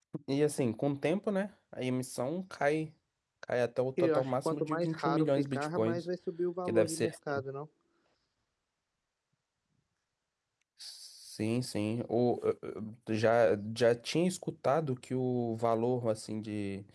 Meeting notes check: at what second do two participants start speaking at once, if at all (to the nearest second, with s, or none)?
4 s